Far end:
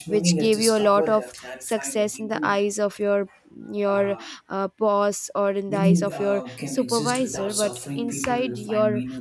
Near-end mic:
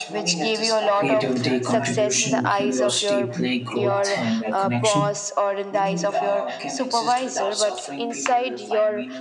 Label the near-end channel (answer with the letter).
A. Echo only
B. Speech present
B